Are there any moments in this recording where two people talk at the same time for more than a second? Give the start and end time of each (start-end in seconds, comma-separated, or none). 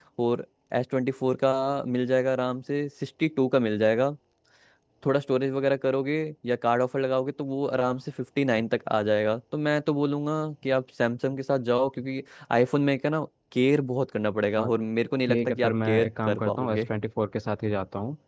15.3-16.8